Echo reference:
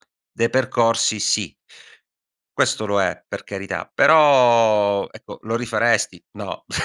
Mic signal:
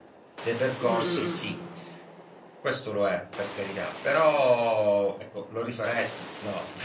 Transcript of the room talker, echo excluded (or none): Mh-mh-mh.